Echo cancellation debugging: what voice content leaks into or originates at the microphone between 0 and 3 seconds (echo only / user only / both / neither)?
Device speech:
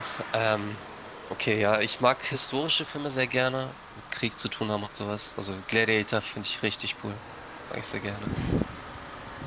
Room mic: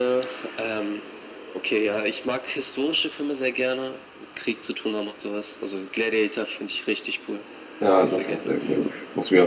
echo only